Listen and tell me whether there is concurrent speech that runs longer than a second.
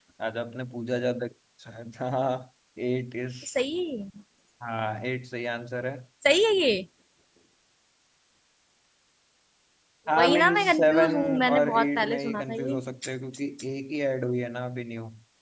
Yes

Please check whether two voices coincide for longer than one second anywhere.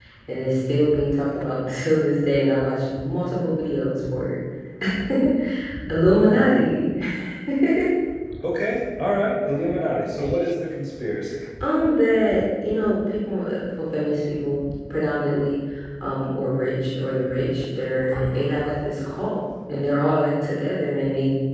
No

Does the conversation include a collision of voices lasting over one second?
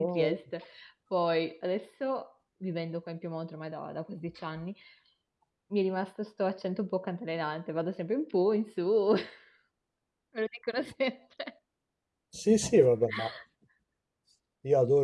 No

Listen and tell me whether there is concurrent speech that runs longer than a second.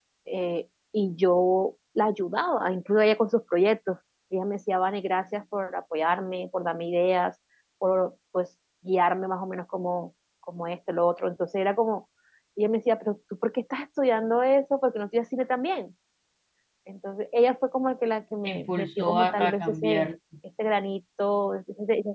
Yes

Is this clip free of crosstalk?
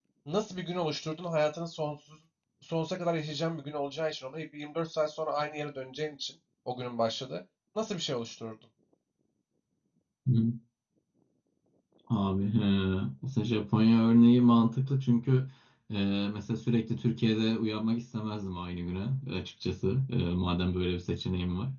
Yes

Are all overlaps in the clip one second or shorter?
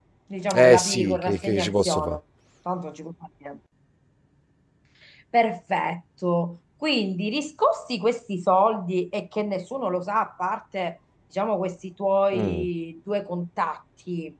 No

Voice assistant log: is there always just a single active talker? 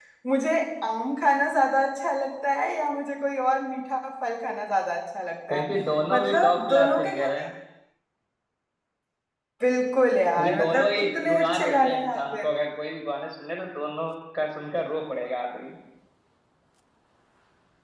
No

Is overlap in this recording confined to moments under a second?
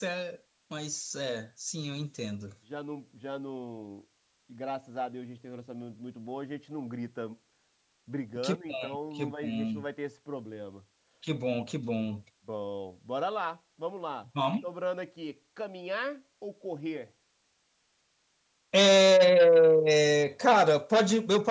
No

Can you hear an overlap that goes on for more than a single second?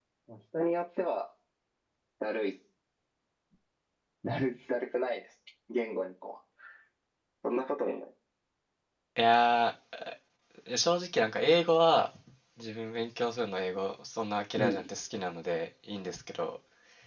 No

